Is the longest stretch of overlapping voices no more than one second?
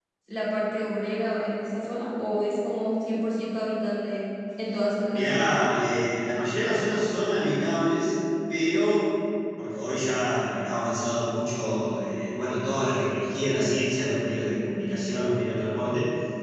Yes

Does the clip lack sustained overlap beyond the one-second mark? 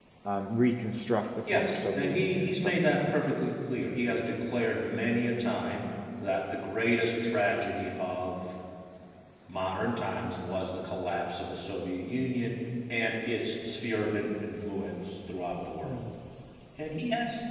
No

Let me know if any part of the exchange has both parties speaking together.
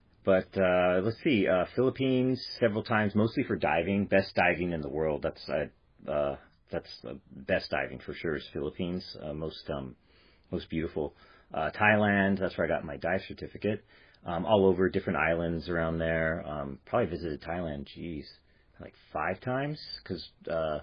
No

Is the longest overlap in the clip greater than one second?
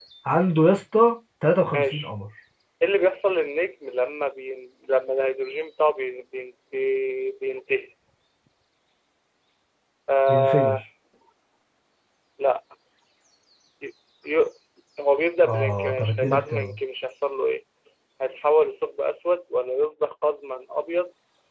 Yes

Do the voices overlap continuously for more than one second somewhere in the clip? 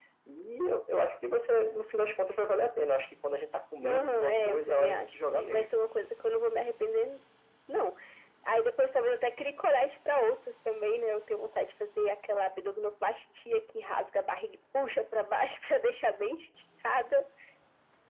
Yes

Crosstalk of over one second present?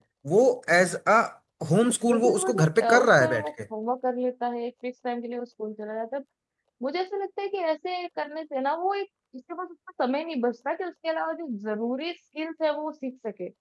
Yes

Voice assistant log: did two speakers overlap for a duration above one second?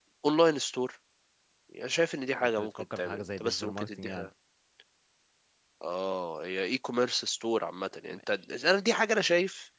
Yes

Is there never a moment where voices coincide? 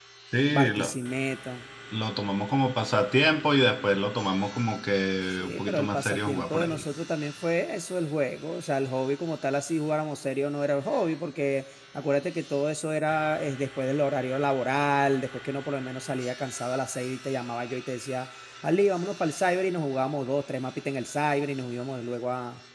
No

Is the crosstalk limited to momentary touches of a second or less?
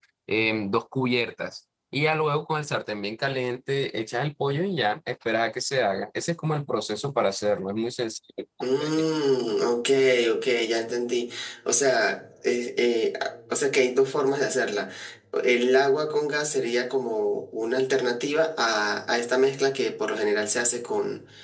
Yes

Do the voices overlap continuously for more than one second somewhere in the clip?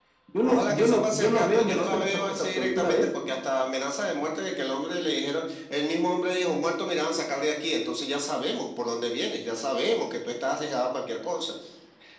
Yes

